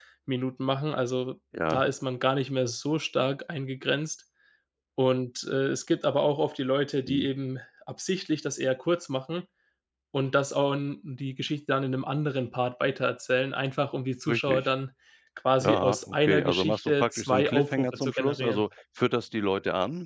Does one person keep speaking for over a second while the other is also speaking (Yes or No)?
Yes